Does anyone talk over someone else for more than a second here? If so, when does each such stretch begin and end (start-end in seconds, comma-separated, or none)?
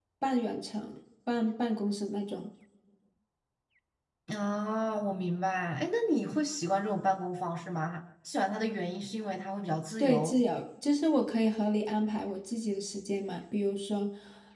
none